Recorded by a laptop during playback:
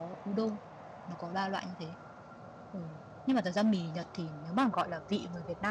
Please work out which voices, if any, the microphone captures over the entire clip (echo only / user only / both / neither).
user only